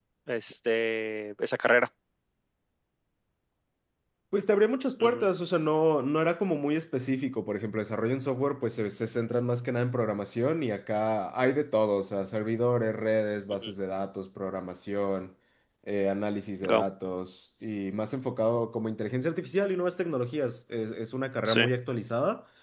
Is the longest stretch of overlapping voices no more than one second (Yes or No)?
Yes